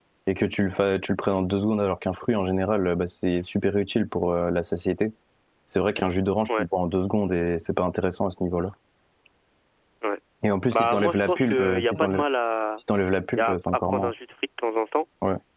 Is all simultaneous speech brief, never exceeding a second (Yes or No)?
No